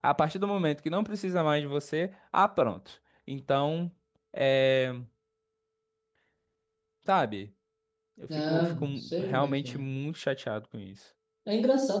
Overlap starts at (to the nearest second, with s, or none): 8 s